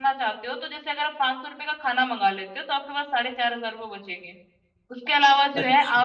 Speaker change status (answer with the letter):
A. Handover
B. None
B